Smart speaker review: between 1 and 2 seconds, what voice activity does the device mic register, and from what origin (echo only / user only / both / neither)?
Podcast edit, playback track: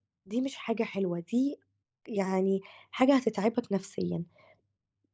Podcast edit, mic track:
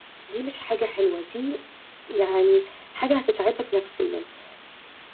echo only